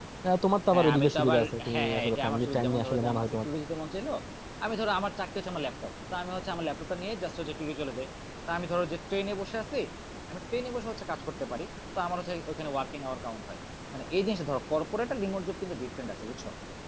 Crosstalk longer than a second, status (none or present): present